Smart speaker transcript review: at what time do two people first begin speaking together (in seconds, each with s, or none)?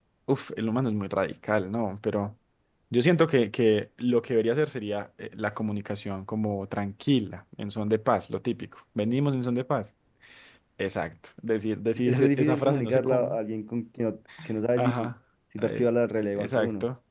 12.1 s